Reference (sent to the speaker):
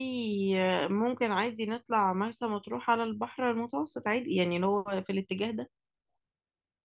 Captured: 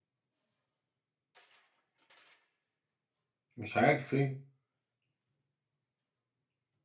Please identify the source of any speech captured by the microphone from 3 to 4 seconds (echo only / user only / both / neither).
user only